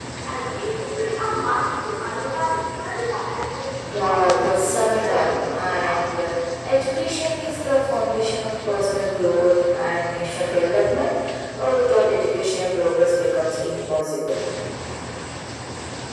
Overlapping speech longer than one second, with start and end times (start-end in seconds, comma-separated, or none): 3.9-6.1